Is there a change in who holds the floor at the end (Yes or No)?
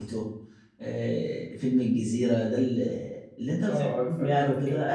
Yes